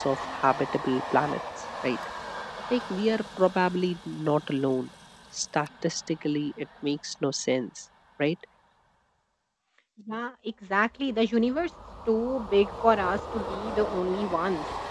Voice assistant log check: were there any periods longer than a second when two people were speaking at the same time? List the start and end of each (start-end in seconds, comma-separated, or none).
none